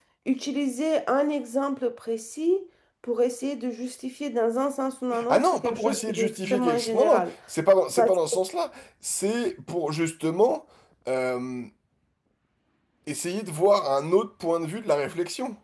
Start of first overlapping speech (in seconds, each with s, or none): 5.1 s